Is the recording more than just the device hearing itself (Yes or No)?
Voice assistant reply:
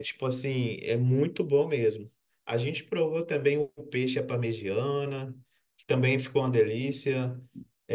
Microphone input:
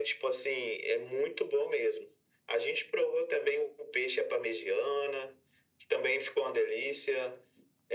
No